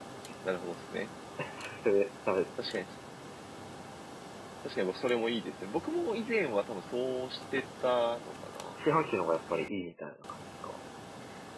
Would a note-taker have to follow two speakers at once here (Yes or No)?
No